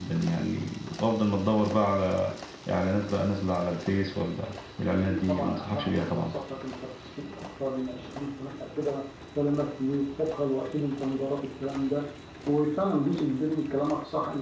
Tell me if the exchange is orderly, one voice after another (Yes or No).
No